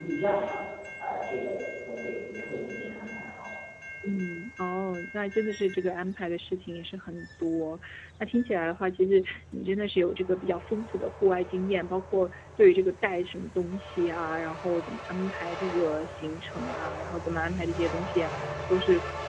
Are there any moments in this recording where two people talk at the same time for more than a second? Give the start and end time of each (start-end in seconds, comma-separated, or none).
none